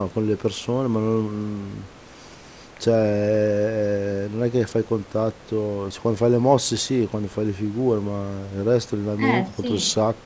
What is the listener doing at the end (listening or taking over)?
listening